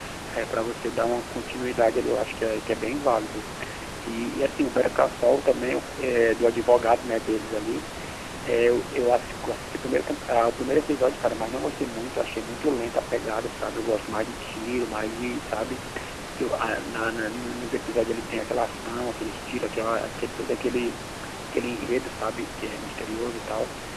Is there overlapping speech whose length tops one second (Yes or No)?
No